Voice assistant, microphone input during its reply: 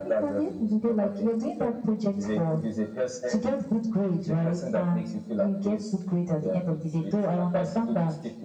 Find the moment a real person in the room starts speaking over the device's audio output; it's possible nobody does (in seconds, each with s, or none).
none